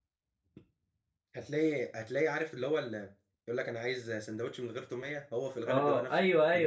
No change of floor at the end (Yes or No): No